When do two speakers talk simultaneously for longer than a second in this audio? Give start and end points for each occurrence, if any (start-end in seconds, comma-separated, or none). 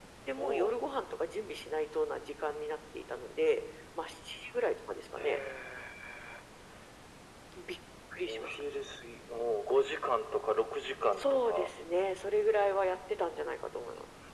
none